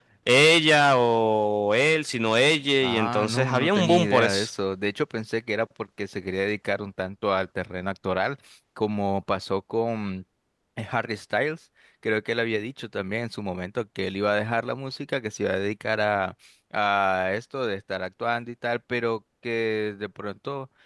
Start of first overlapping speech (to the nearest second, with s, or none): 3 s